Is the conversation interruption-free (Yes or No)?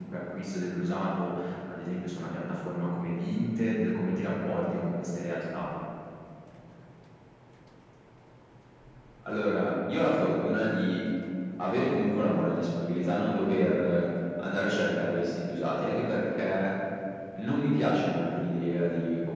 Yes